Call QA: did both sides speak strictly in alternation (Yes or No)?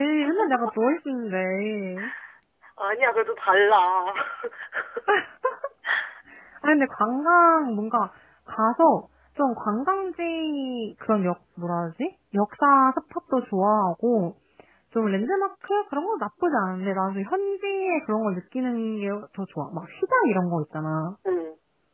Yes